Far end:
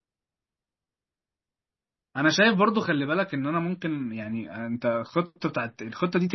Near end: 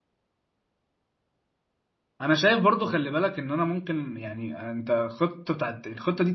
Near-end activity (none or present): none